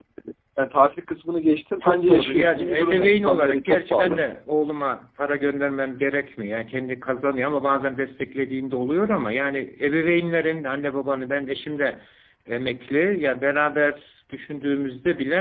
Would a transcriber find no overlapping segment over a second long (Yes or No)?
No